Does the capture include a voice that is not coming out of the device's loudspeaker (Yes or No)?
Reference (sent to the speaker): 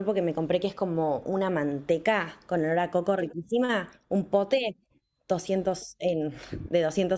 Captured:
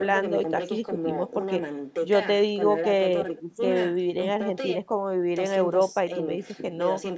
Yes